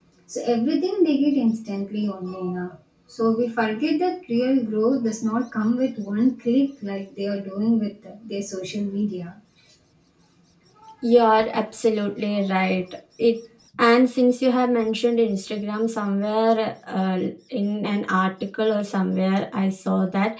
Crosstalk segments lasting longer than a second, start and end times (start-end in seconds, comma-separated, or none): none